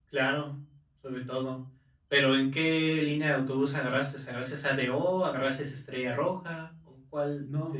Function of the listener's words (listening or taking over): taking over